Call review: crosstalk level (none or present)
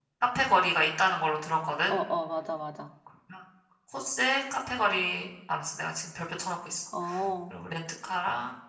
none